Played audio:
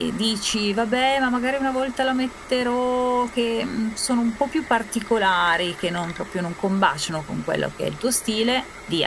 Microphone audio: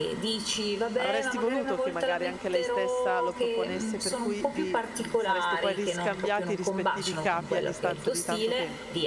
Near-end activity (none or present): present